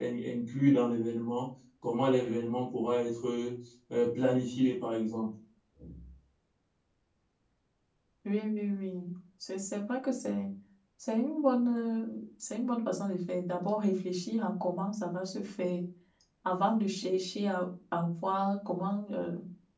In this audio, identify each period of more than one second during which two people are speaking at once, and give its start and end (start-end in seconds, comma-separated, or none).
none